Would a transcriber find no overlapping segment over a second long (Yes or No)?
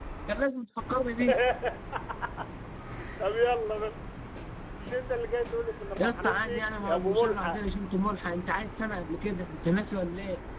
No